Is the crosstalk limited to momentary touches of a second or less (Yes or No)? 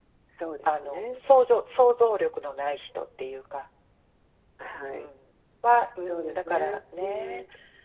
No